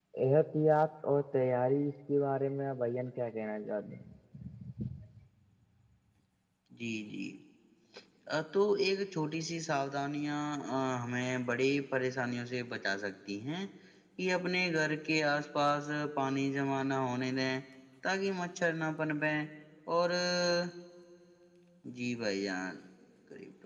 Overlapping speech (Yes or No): No